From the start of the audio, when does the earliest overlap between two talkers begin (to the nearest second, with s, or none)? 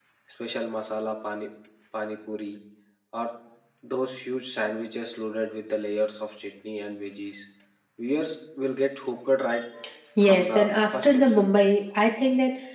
10 s